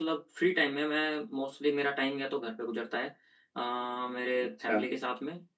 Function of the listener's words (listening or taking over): listening